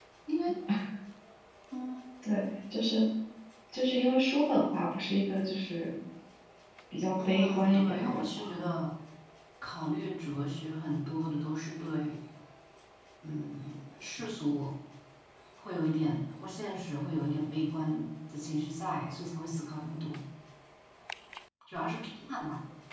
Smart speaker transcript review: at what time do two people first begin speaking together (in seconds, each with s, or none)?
7.2 s